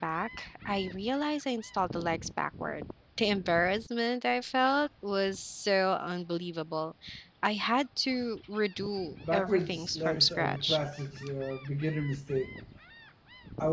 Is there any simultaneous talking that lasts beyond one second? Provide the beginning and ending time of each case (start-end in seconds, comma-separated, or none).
9.3-10.8